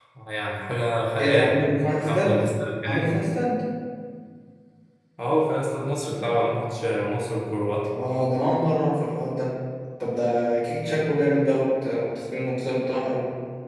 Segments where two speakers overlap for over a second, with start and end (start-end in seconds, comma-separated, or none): 1.2-2.4